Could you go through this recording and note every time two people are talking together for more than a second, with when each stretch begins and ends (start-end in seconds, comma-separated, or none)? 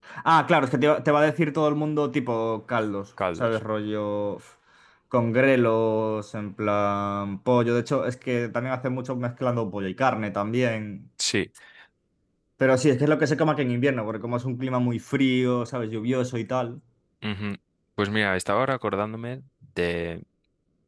none